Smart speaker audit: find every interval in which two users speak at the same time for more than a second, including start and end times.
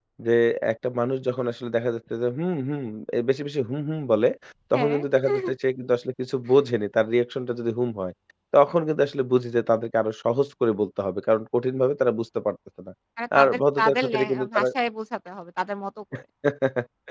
13.4-14.7

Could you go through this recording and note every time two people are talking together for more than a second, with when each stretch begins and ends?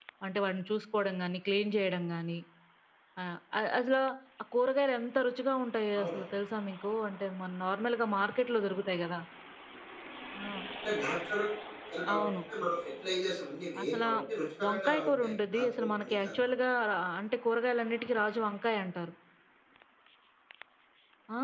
14.6-16.5

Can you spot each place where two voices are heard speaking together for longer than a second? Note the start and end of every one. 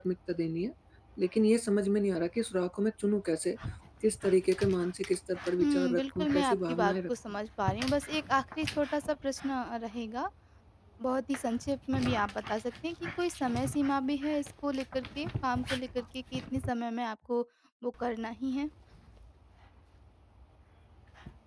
5.6-7.1

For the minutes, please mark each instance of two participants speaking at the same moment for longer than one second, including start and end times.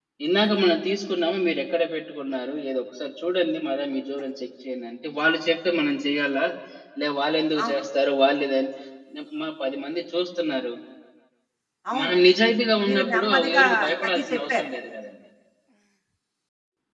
12.8-14.6

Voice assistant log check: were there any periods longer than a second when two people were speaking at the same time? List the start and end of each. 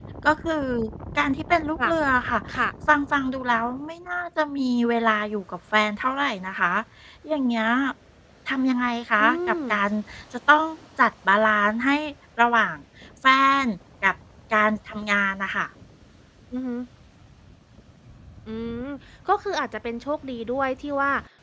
none

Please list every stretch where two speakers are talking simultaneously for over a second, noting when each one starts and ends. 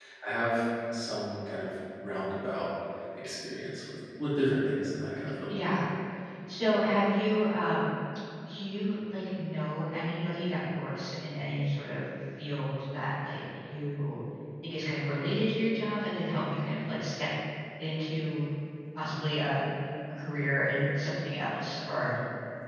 none

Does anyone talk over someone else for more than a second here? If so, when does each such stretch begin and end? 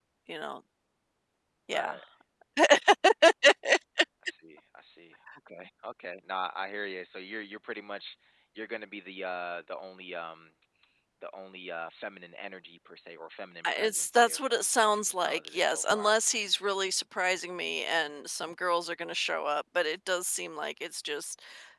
13.6-16.1

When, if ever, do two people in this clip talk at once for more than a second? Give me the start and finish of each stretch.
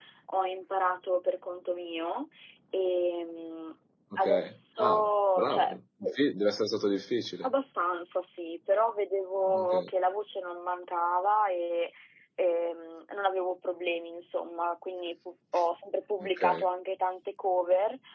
4.2-5.8

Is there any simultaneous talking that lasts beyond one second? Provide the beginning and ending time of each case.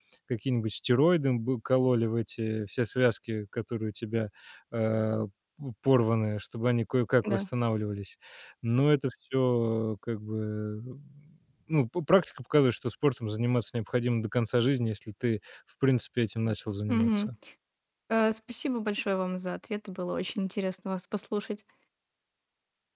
none

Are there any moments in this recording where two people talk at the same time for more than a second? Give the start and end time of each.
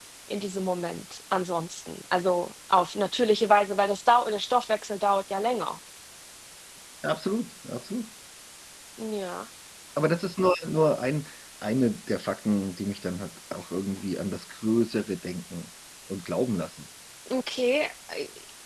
none

